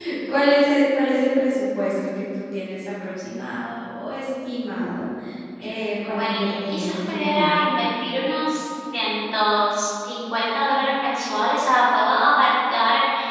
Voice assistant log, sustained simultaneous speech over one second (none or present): present